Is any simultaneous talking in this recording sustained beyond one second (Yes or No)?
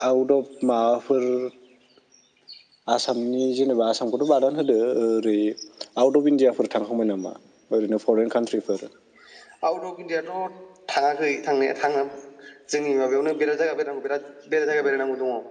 No